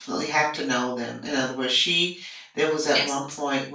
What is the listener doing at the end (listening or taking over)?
listening